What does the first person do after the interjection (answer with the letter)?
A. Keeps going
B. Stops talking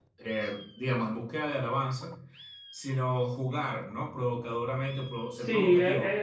B